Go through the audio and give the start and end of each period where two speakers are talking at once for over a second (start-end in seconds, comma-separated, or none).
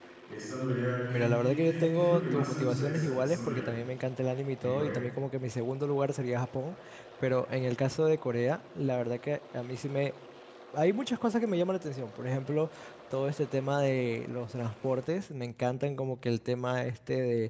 1.1-3.6